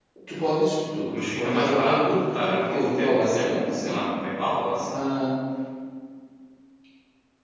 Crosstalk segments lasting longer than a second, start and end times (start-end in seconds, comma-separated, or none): 1.1-4.0